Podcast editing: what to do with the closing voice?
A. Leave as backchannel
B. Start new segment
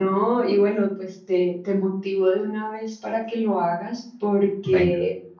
A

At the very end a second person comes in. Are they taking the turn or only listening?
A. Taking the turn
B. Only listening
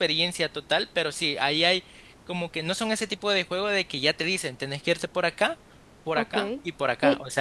A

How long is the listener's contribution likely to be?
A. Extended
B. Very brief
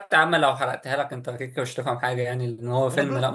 B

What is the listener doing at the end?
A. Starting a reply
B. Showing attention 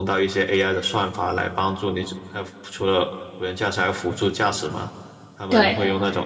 B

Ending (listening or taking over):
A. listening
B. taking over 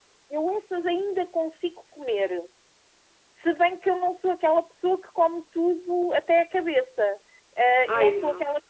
A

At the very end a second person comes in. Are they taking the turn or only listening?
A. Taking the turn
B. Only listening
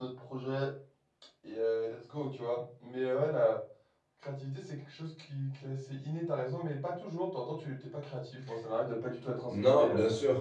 A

